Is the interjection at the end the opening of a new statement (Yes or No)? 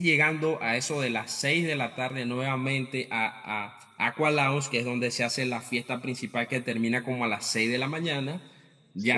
No